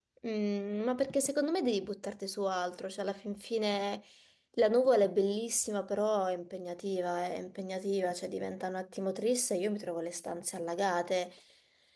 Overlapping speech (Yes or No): No